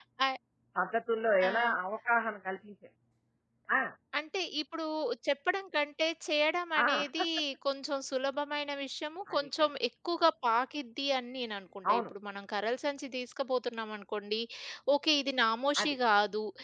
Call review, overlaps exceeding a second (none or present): none